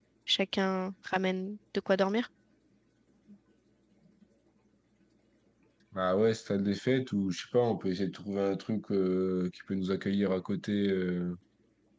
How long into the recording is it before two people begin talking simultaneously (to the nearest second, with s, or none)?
none